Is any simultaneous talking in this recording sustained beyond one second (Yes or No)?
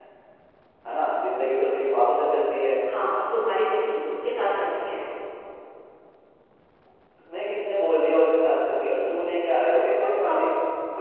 No